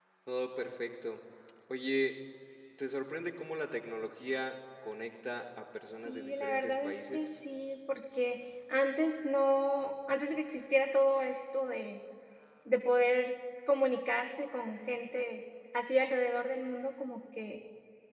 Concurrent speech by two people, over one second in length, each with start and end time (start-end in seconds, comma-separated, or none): 6.0-7.4